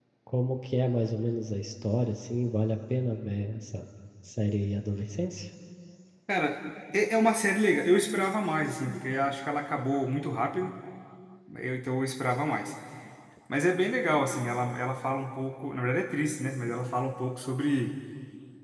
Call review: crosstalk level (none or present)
none